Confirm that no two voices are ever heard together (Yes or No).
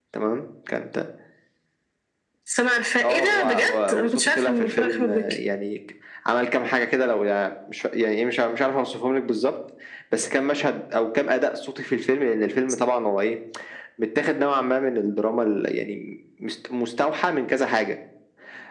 No